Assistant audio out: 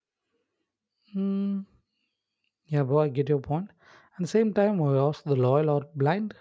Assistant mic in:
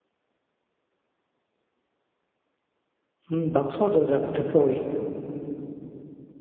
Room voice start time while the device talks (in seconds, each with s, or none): 3.3 s